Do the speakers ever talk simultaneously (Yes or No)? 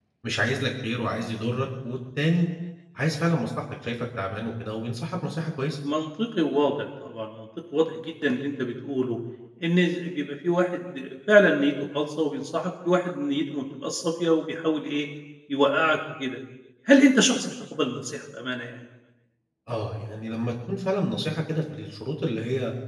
No